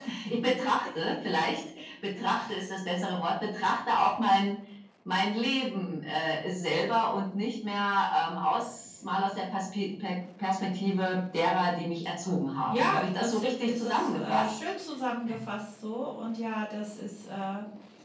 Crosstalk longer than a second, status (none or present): present